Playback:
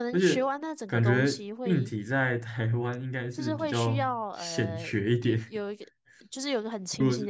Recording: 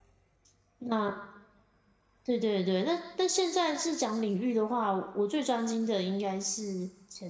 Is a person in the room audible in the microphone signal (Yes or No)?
Yes